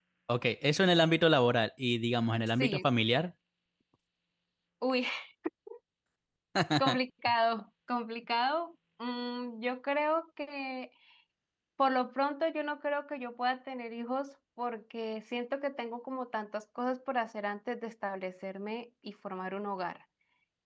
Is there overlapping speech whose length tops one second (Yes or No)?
No